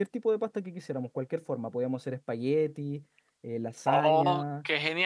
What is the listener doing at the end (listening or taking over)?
taking over